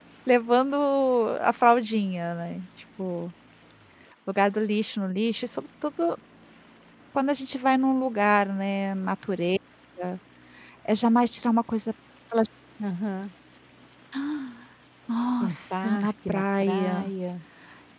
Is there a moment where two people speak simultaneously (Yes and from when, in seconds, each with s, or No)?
Yes, from 15.4 s